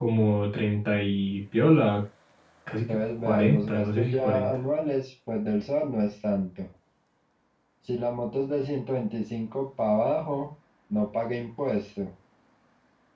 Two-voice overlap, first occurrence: 2.9 s

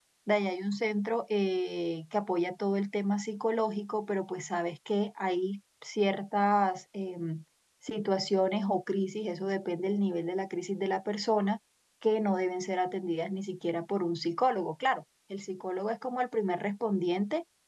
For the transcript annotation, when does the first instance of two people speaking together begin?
none

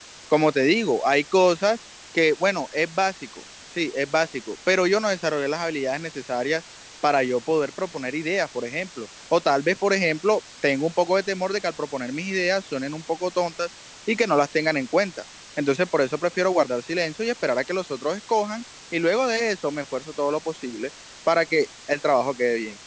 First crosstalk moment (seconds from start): none

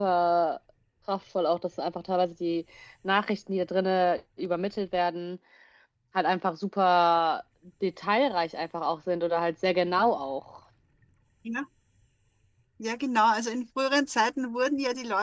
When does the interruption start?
none

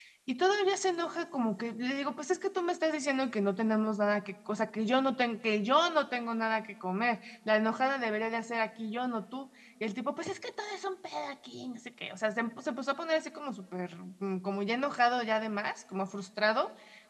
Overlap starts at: none

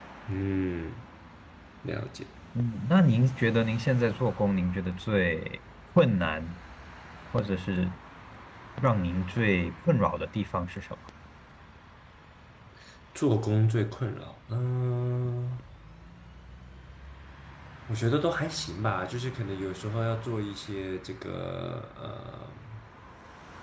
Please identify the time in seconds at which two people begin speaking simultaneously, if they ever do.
none

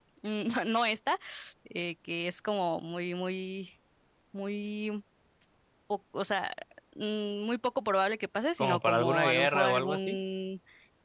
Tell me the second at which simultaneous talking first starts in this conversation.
8.6 s

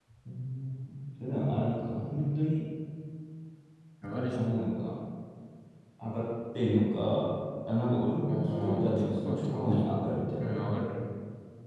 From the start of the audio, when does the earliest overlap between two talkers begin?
8.3 s

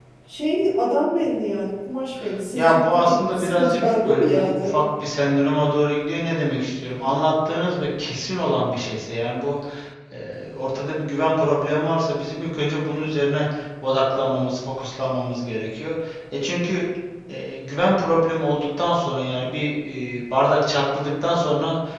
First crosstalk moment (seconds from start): 2.6 s

